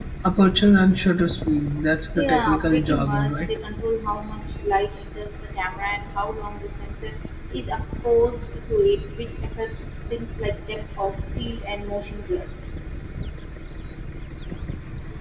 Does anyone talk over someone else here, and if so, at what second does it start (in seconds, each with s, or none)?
2.2 s